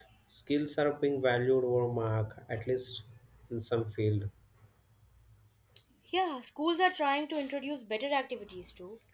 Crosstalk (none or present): none